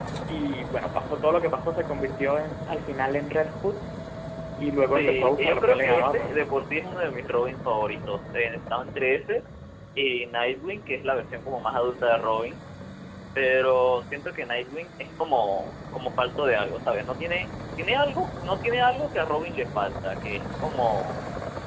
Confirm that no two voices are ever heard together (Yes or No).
No